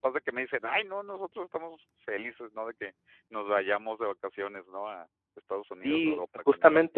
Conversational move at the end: taking over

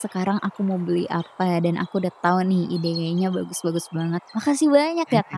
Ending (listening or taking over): taking over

